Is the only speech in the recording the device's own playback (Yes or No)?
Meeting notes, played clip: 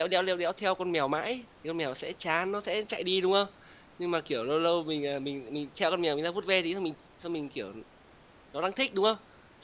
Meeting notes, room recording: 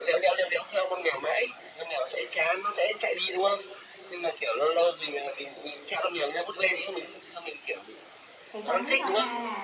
No